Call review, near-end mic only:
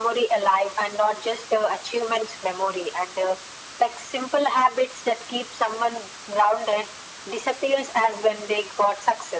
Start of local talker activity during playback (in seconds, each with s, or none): none